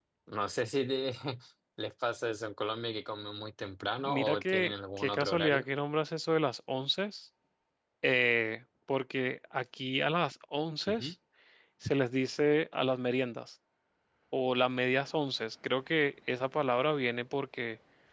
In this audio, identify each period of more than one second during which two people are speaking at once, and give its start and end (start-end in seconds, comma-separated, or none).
4.0-5.6